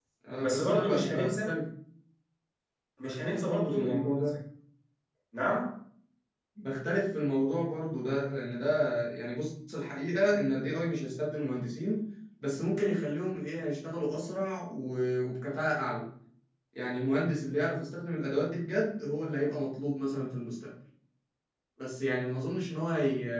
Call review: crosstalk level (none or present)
present